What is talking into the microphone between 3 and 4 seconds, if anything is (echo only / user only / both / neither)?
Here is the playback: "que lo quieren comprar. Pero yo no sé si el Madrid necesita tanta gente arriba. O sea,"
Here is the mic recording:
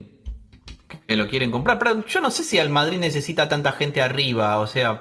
echo only